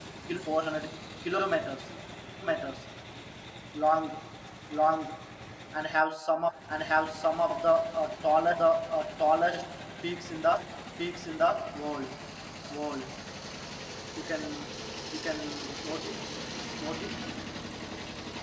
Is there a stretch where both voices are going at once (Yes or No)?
No